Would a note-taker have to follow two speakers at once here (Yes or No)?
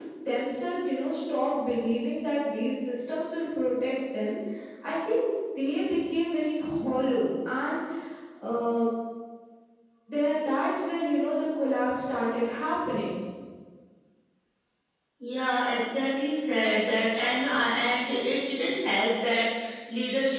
No